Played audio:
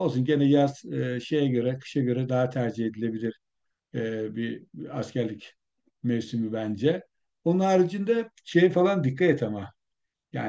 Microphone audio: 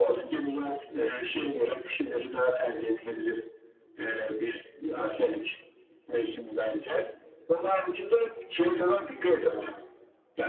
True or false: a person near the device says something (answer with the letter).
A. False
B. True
A